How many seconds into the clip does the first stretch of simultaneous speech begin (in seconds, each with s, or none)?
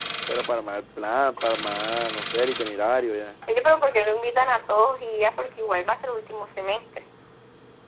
none